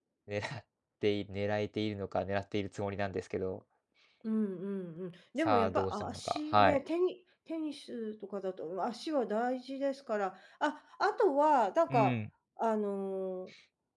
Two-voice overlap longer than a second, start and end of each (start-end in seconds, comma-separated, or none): 5.4-6.8